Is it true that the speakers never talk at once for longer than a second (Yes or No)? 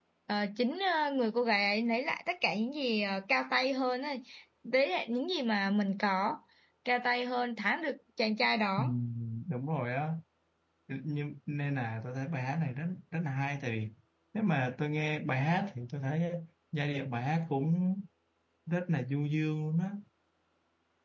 Yes